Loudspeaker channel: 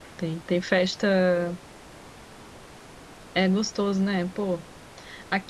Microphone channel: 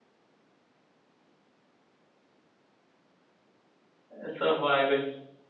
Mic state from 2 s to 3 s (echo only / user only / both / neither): neither